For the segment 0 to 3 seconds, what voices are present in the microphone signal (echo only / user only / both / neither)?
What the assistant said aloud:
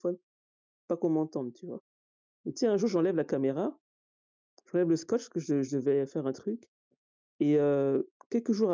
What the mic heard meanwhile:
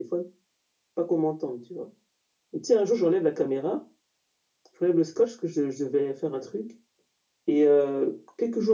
echo only